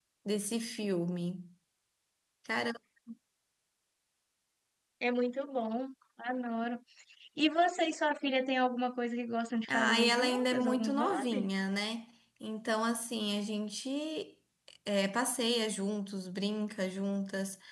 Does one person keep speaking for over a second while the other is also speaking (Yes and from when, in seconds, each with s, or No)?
Yes, from 9.7 s